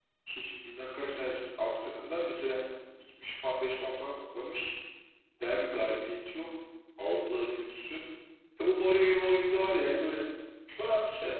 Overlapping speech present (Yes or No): No